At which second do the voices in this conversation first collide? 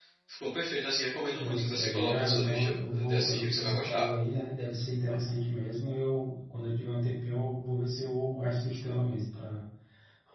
1.4 s

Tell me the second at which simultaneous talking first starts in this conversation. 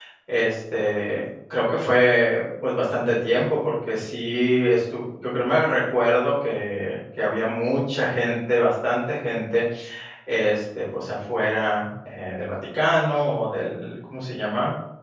none

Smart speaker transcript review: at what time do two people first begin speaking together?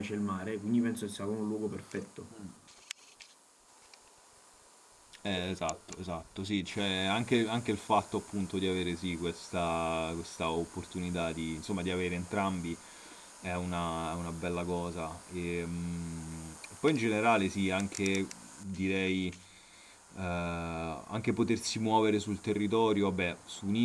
none

